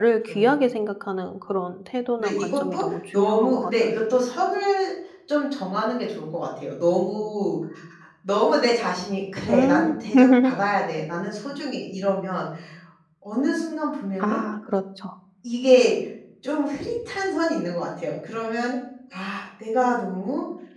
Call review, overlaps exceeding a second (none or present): present